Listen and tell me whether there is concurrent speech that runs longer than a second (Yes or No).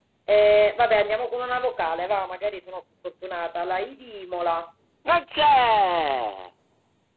No